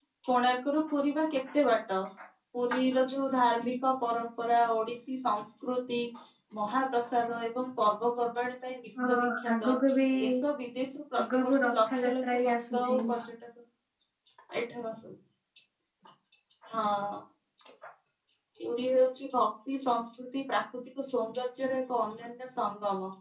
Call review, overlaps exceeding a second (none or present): present